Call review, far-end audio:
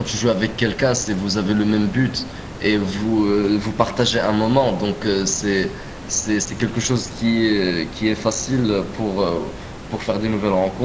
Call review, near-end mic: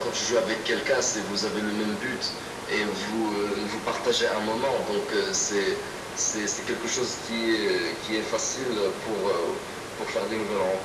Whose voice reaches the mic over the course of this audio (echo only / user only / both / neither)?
echo only